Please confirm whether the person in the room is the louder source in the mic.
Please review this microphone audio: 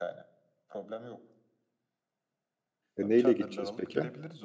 Yes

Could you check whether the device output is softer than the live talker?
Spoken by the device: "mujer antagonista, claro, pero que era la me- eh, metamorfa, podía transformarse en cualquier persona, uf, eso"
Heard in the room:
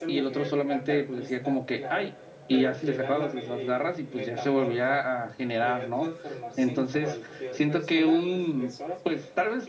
Yes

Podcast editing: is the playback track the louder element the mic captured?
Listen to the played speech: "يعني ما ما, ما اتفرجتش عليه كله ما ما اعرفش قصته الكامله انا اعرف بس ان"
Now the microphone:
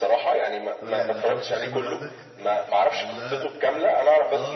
Yes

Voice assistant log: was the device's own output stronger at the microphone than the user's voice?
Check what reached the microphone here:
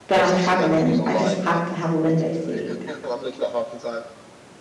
No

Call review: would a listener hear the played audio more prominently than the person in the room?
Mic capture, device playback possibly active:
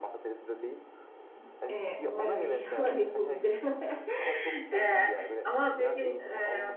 No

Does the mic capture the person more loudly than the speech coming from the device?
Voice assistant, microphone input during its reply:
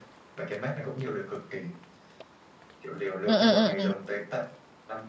Yes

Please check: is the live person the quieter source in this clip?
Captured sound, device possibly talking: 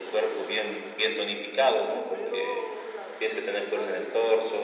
Yes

